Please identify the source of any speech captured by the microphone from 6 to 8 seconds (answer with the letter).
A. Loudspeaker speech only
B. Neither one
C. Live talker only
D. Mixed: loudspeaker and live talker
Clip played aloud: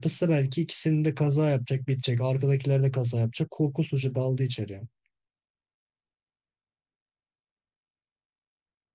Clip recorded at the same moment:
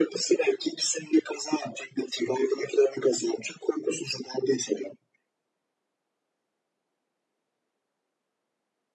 B